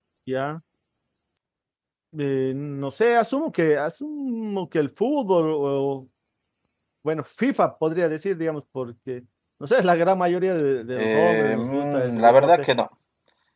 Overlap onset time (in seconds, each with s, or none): 11.0 s